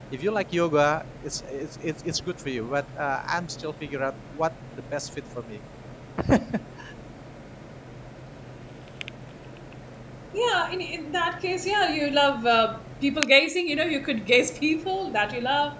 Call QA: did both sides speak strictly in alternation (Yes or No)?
Yes